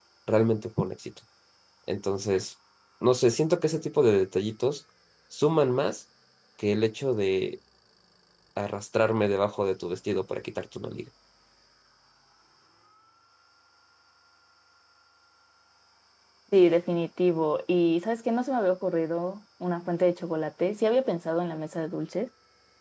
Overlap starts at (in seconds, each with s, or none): none